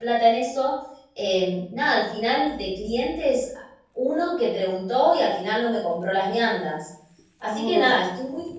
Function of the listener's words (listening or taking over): listening